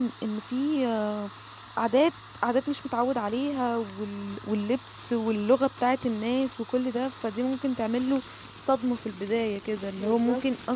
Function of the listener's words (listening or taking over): listening